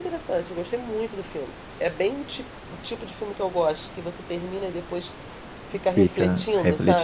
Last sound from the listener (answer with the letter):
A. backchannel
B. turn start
B